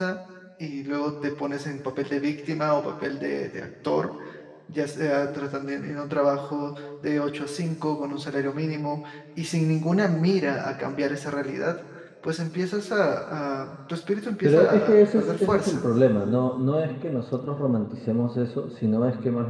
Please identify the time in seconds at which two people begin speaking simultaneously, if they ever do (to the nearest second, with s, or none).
14 s